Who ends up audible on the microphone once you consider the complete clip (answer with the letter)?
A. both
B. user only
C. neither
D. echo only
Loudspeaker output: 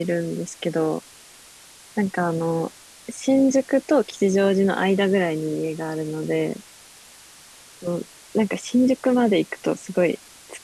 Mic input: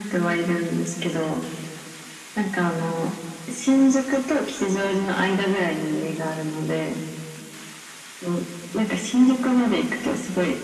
D